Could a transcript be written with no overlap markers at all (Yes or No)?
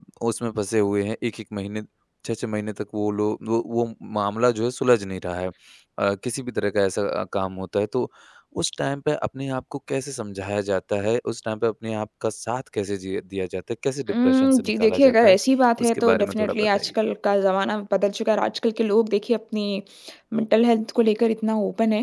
No